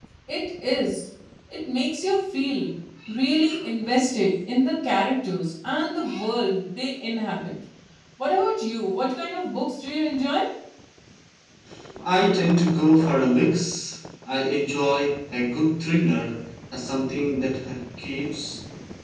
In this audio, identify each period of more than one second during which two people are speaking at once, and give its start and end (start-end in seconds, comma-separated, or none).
none